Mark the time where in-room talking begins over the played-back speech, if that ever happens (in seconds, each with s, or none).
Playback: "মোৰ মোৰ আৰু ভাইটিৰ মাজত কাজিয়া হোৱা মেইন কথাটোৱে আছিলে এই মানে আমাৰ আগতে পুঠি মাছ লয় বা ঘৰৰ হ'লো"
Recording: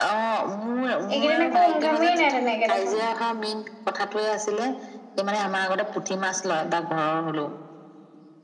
1.1 s